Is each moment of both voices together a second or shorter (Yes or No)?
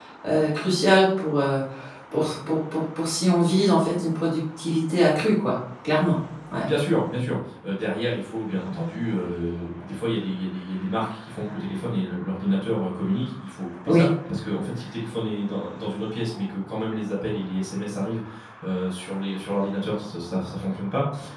Yes